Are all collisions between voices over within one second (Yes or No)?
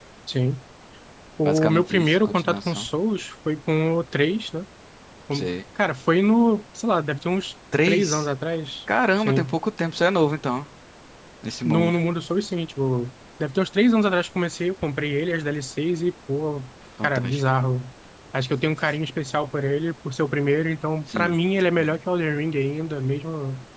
No